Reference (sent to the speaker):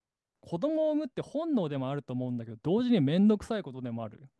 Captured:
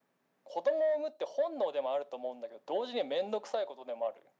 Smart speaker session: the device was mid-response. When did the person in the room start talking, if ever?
none

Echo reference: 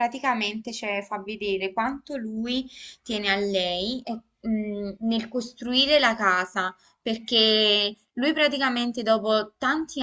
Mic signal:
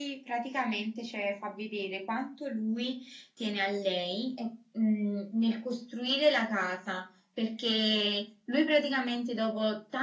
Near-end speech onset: none

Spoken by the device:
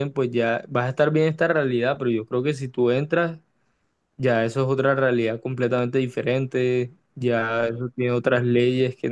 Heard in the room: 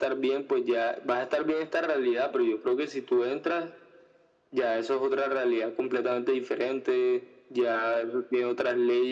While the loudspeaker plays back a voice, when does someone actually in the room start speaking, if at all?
none

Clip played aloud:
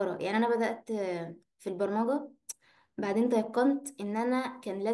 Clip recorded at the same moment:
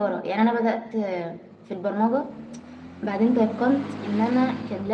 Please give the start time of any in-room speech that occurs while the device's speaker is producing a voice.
none

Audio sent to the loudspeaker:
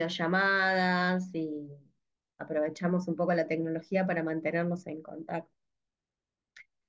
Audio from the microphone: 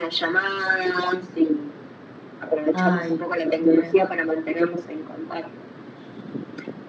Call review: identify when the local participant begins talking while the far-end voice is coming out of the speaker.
3 s

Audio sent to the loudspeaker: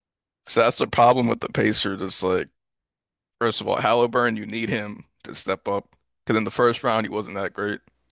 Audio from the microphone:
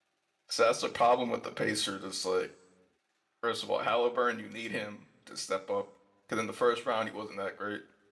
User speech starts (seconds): none

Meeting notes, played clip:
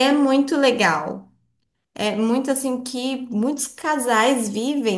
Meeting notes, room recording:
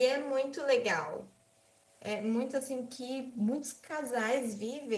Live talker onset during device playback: none

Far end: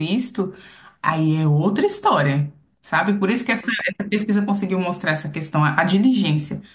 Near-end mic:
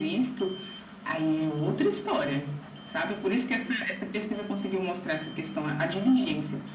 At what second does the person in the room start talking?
none

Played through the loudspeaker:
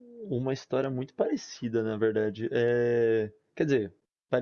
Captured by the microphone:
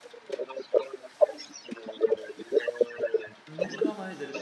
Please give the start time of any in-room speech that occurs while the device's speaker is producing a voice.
3 s

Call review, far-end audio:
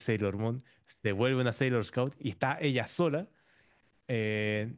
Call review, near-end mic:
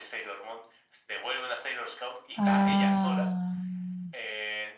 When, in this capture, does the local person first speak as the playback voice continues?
2 s

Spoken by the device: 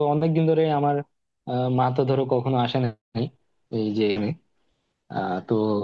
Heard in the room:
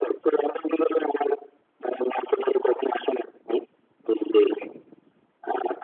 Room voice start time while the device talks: none

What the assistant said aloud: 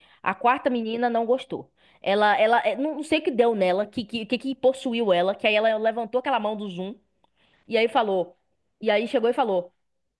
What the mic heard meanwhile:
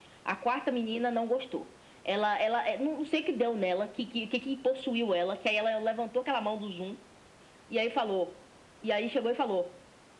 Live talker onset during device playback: none

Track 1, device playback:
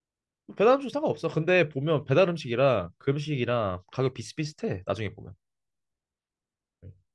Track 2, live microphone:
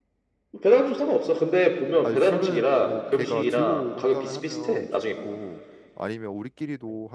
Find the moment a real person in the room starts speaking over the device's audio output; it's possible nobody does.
2 s

